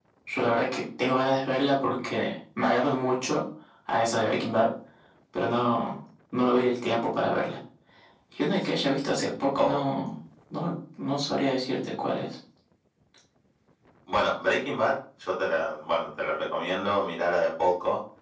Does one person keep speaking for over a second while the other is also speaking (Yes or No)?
No